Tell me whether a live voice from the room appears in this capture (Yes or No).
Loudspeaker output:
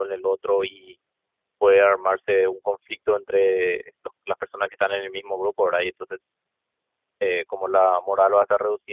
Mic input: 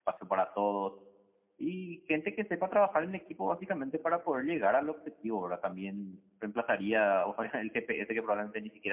Yes